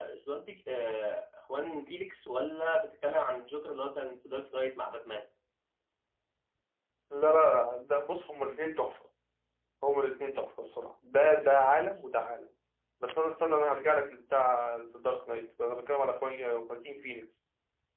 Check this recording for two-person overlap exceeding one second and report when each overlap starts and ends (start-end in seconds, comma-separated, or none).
none